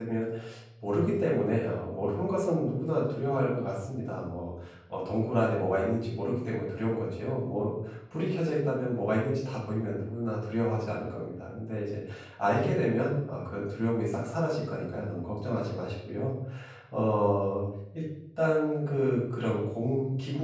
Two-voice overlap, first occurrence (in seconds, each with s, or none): none